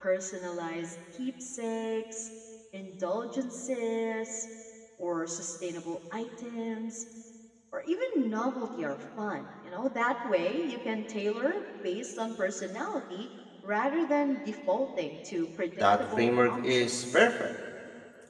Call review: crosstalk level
present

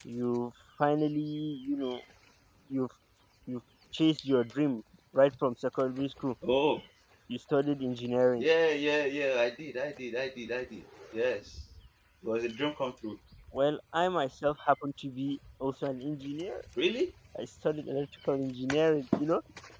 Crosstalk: none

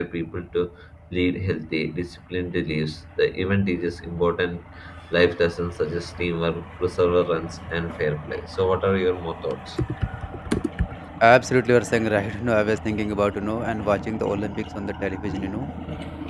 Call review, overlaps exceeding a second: none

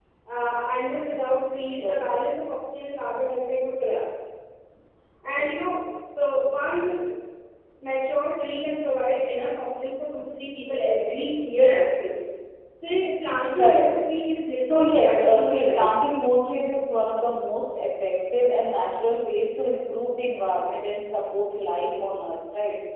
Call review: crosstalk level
present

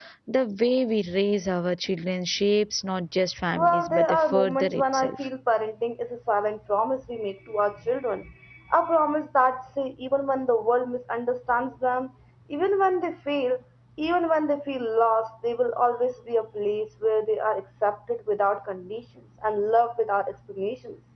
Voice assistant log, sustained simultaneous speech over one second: present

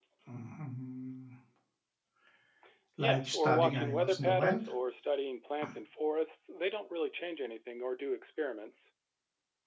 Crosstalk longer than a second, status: present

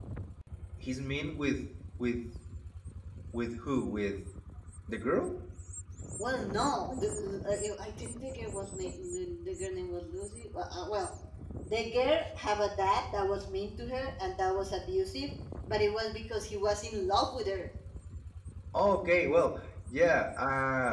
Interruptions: none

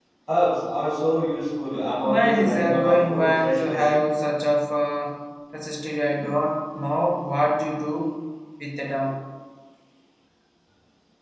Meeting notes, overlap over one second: present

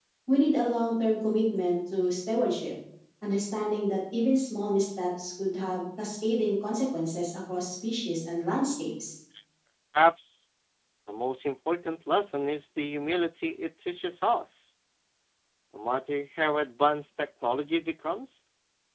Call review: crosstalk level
none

